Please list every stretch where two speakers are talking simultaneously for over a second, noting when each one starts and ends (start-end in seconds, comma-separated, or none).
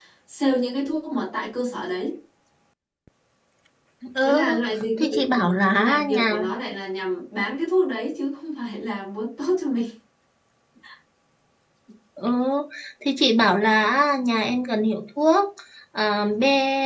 5.0-6.3